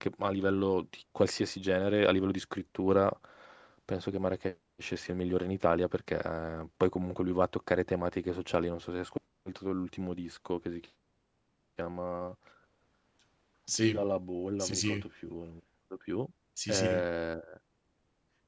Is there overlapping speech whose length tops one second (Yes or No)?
No